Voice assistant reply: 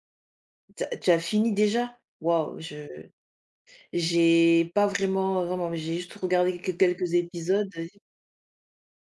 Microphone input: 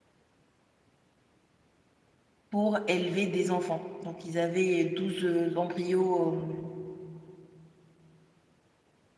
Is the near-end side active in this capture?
Yes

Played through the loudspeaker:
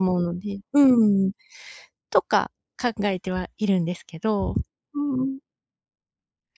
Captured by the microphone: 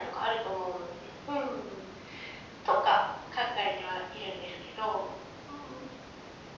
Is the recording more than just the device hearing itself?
No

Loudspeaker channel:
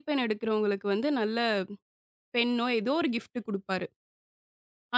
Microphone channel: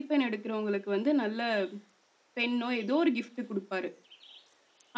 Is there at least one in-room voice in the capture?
No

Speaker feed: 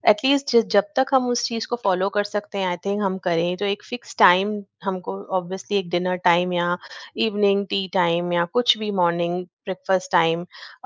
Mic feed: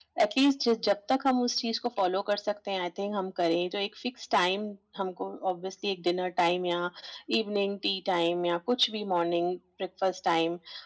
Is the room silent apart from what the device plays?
Yes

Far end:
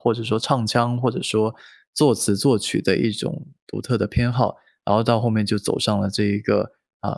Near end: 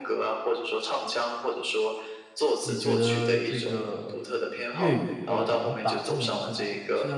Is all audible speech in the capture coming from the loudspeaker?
No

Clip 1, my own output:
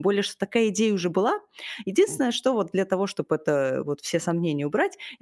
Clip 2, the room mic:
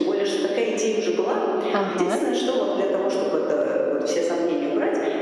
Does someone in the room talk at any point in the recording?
Yes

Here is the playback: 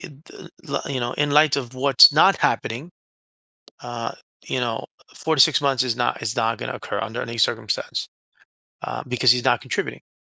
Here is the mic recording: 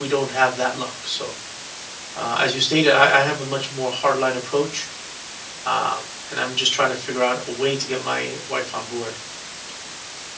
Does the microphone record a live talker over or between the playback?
Yes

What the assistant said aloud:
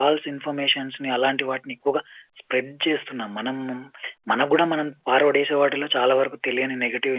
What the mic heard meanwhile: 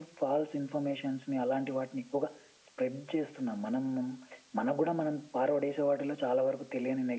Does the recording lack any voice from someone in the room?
Yes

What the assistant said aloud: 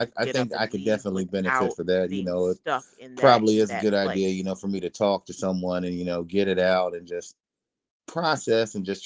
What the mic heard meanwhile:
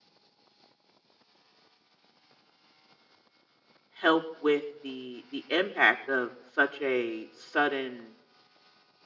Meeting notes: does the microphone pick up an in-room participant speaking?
Yes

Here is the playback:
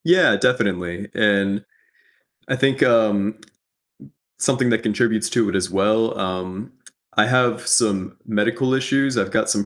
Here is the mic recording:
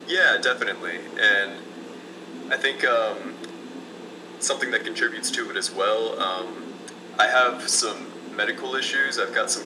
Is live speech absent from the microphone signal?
Yes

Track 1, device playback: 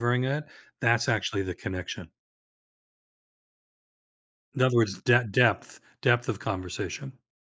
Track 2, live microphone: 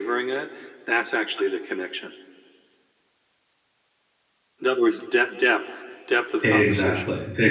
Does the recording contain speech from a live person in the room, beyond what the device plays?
Yes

